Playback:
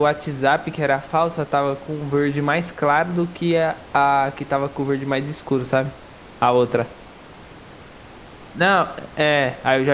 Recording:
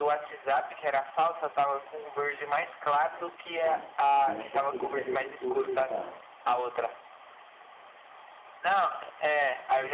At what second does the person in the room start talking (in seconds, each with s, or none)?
3.5 s